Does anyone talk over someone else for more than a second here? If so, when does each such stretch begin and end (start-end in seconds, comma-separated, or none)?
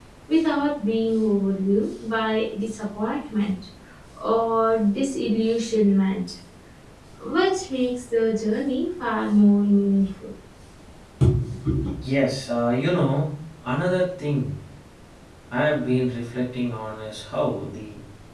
none